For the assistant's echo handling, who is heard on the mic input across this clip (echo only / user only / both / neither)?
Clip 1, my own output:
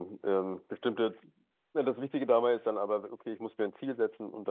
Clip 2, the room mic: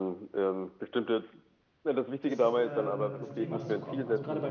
both